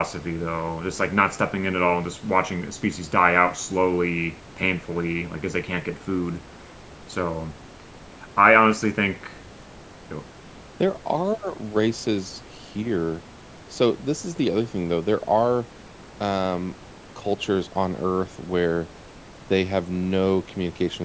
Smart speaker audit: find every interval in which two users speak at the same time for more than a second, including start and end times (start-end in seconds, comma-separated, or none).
none